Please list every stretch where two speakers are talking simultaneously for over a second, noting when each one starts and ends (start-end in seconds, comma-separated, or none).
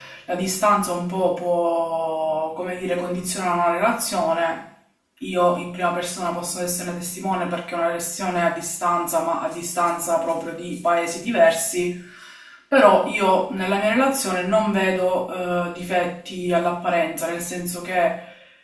none